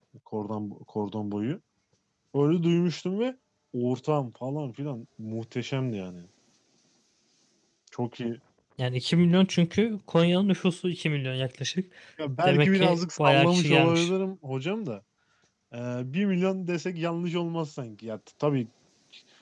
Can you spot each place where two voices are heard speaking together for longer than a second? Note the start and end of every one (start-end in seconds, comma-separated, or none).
12.4-14.1